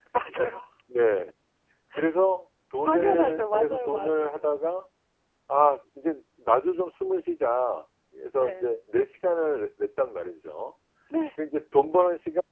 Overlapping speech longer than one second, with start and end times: 2.8-4.5

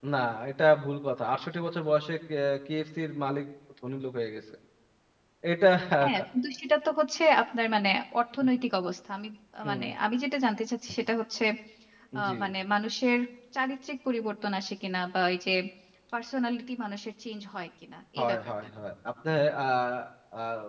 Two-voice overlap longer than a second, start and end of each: none

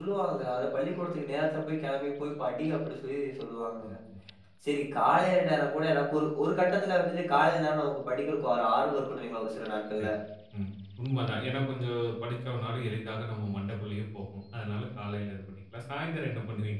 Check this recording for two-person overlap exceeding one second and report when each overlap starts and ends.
none

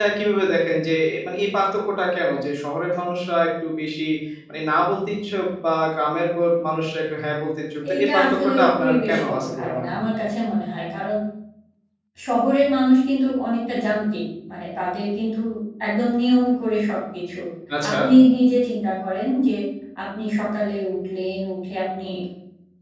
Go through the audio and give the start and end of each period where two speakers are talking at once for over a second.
7.9-10.0

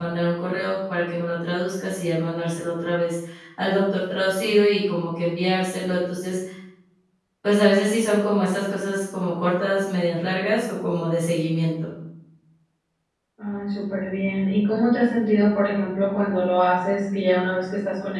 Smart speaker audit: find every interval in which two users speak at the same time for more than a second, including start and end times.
none

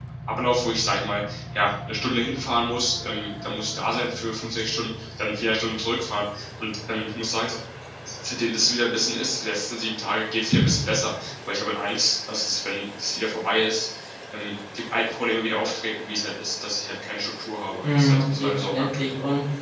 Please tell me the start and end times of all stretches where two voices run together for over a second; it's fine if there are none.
17.8-19.1

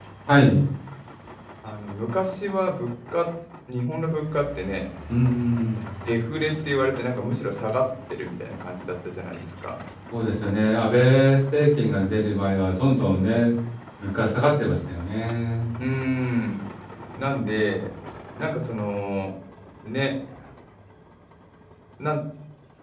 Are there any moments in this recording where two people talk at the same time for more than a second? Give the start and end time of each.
none

